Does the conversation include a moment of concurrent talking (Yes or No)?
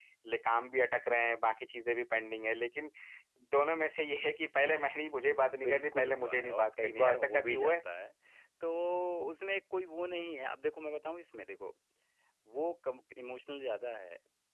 Yes